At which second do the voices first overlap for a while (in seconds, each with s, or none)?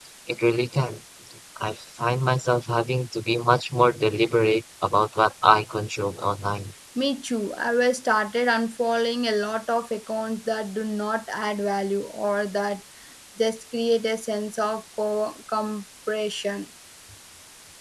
none